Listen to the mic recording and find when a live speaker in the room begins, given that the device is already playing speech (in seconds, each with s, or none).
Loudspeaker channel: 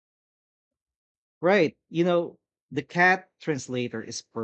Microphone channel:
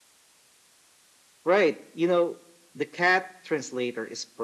none